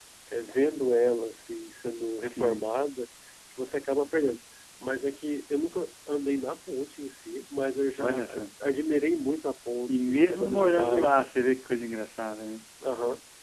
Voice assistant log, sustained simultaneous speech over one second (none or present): present